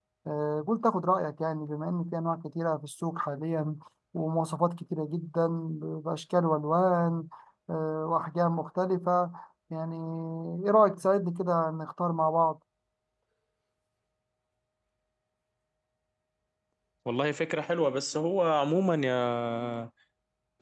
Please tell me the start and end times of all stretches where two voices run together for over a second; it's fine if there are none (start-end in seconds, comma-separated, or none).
none